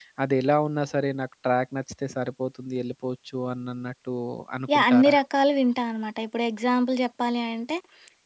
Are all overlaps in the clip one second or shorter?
Yes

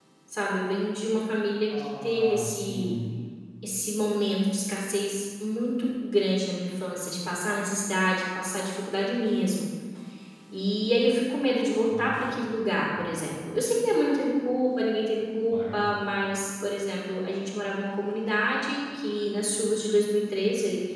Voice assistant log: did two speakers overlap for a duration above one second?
Yes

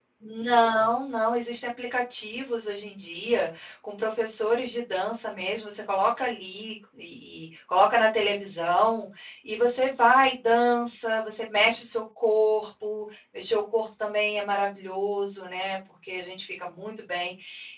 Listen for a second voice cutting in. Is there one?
No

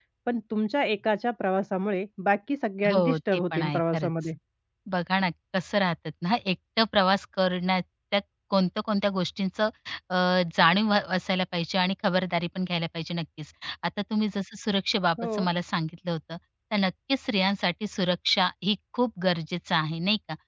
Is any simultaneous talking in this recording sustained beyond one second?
Yes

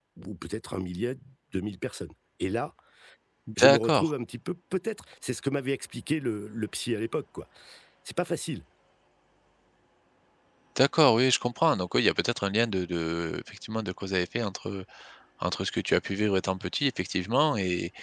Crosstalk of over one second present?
No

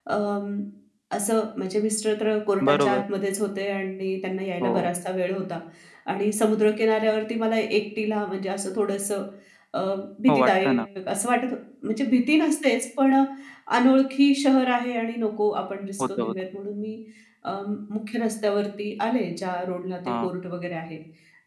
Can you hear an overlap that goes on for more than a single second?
No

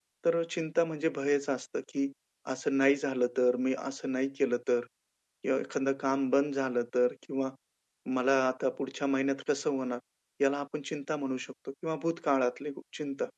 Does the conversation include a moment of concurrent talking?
No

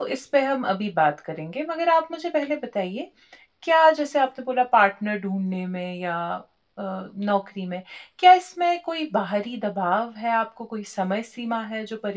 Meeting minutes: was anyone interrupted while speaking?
No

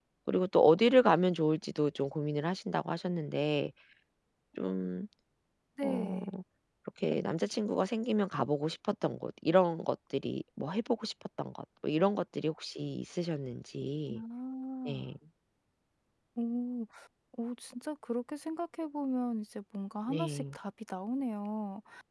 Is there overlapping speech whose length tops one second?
No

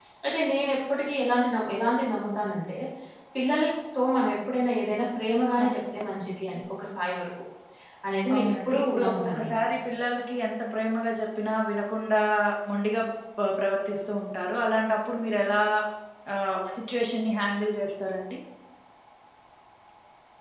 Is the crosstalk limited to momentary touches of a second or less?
No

